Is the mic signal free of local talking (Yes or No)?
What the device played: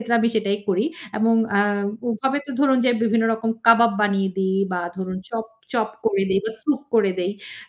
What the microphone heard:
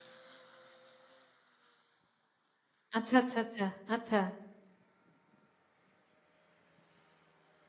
No